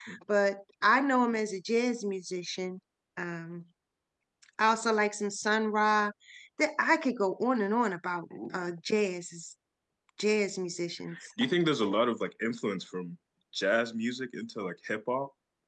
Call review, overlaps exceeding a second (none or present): none